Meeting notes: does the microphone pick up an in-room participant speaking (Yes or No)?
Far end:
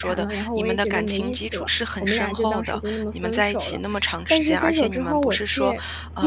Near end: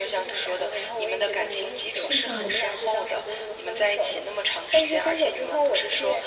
Yes